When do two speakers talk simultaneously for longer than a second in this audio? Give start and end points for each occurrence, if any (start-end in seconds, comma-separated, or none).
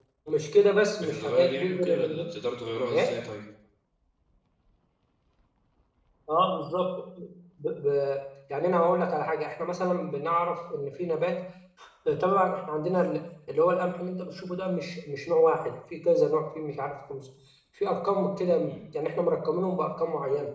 1.0-2.3